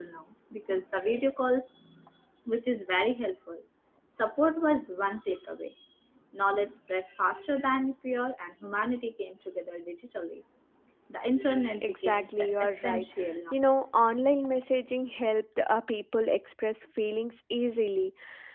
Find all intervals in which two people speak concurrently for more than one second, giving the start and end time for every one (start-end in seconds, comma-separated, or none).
11.8-13.0